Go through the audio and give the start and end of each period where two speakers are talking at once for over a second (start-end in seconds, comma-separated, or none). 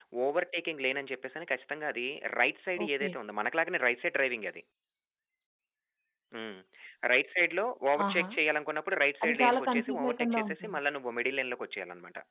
9.2-10.8